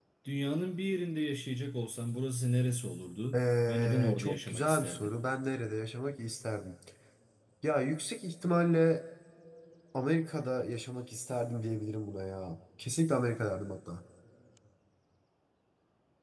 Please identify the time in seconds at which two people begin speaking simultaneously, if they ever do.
3 s

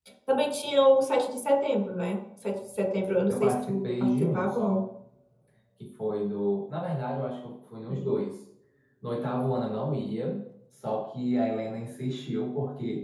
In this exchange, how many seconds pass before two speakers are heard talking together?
3 s

